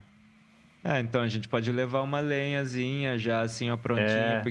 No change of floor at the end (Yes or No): Yes